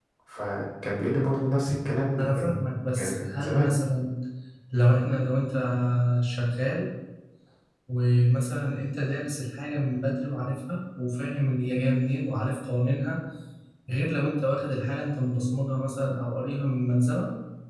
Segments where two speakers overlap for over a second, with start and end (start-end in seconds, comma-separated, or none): 2.2-3.8